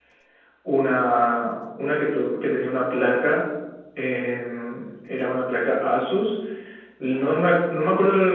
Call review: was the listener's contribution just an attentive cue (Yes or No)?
Yes